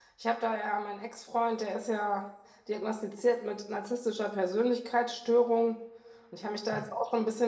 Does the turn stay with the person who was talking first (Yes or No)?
Yes